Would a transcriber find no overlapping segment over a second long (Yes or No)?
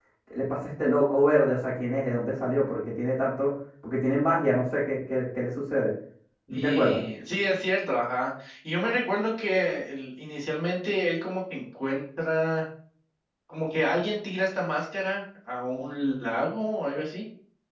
Yes